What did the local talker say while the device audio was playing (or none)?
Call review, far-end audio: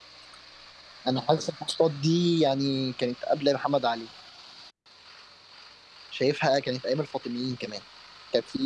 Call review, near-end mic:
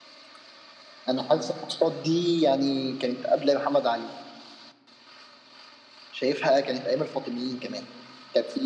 none